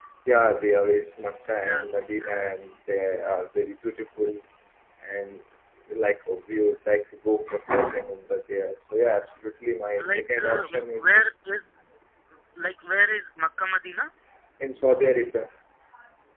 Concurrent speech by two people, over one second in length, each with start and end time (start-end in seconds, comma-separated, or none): 10.0-11.3